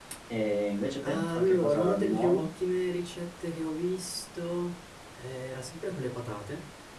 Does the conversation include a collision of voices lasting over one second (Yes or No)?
Yes